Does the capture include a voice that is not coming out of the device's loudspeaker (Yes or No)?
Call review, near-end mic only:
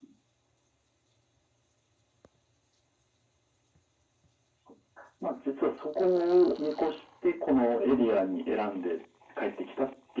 No